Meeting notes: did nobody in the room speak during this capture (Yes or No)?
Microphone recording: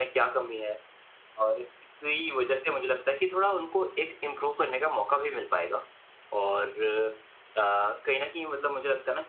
Yes